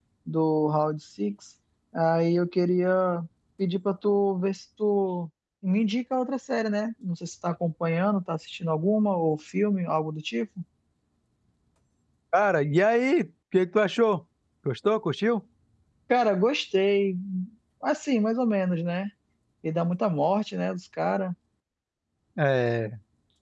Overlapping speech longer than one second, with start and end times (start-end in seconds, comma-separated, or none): none